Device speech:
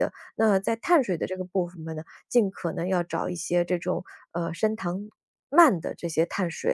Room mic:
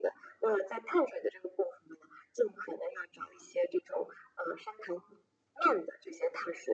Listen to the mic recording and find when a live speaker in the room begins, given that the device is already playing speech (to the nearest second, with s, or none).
none